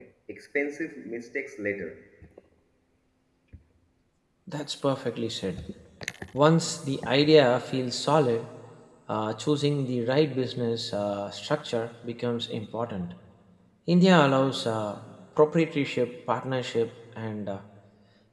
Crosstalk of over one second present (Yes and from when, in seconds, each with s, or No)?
No